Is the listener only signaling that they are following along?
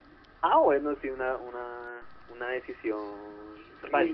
No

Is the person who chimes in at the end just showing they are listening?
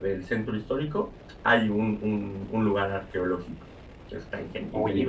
No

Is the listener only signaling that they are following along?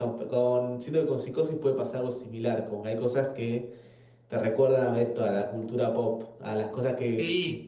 No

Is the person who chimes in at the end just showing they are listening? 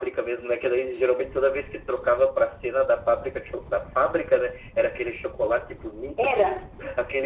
Yes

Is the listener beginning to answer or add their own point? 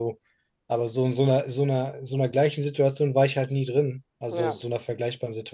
No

